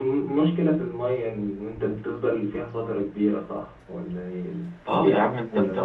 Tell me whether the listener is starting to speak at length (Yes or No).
Yes